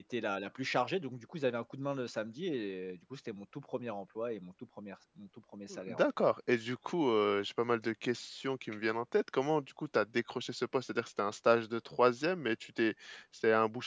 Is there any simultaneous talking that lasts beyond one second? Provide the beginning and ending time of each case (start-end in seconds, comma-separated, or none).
none